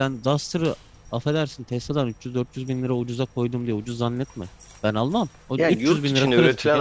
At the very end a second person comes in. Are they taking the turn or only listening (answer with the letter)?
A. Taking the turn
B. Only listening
A